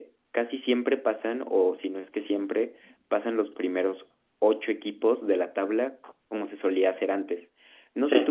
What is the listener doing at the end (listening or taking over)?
listening